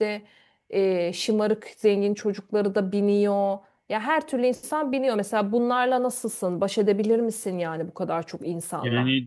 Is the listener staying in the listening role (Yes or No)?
No